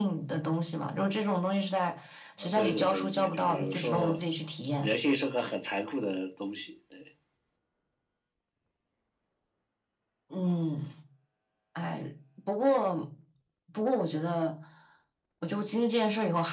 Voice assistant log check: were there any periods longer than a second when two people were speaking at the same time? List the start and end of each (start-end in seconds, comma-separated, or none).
2.4-4.2